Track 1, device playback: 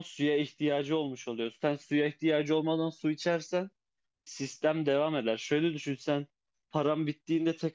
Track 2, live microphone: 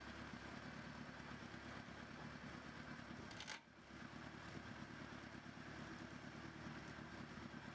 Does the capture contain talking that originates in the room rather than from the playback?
No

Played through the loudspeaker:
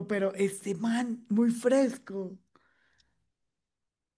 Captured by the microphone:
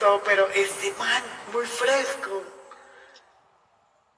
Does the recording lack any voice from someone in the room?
Yes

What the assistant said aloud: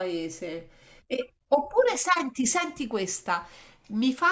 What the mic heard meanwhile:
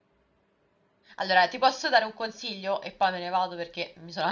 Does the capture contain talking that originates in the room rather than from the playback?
Yes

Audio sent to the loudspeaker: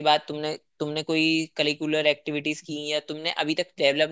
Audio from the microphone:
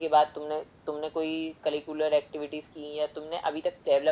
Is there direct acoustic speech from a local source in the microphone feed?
No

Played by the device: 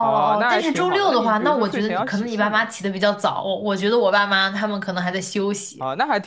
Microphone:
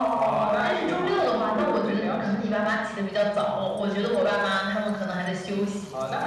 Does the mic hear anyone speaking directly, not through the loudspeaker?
No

